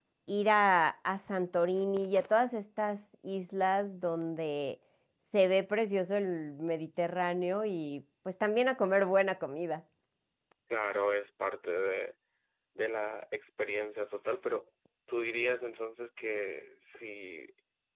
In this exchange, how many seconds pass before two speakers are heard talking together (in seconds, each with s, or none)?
none